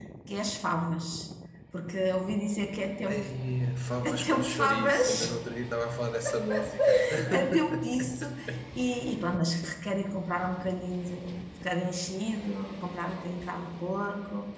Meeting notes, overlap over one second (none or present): present